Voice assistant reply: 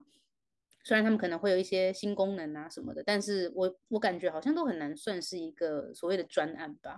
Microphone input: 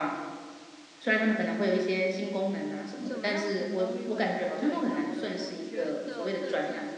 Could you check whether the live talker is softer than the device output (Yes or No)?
Yes